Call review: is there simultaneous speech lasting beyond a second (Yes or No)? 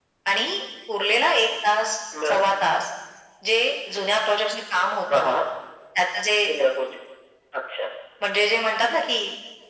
No